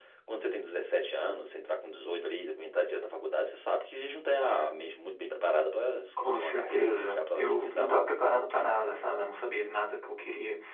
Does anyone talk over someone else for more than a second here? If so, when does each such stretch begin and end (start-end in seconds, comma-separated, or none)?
6.2-7.9